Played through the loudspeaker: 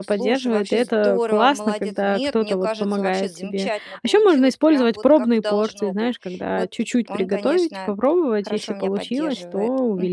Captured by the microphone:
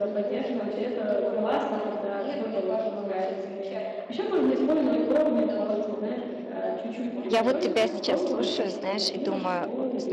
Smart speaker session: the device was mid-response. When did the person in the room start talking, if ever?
7.3 s

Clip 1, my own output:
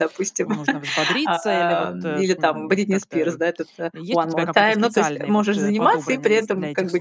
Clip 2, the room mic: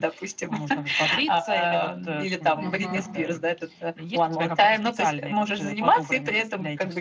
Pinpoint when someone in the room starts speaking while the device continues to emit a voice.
2.6 s

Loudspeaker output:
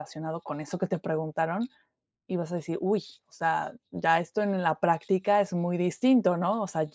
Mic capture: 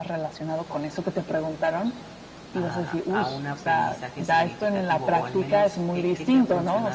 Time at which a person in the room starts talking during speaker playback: 2.5 s

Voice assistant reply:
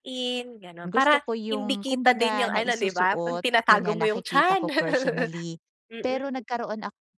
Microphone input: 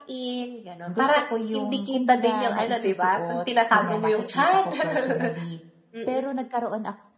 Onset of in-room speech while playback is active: none

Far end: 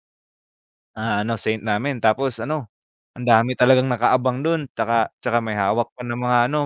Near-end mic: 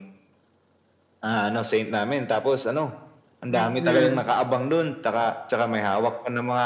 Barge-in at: 3.5 s

